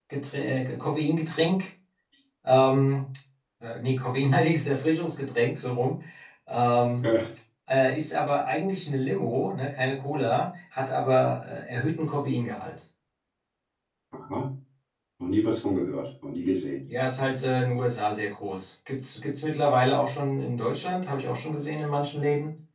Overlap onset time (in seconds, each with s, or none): none